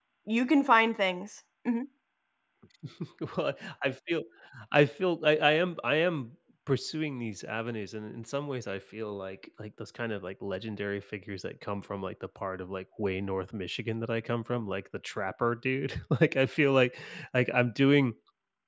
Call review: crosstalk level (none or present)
none